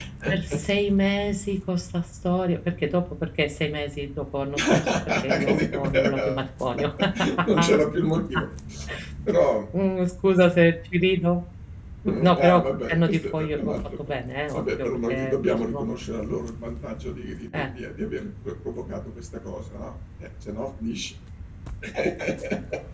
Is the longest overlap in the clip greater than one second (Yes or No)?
Yes